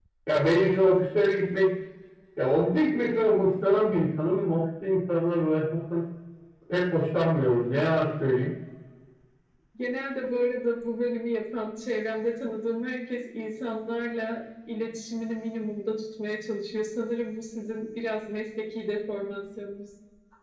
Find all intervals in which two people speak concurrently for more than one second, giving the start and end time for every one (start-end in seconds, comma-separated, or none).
none